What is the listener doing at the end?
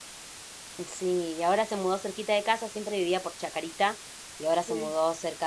listening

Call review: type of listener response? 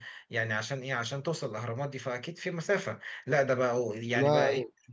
listening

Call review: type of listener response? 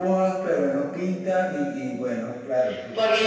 taking over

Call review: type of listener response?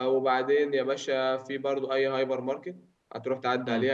listening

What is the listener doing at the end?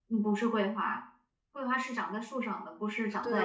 taking over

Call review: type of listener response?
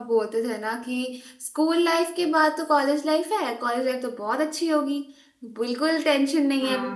listening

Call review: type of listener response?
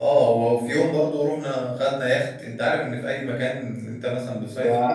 taking over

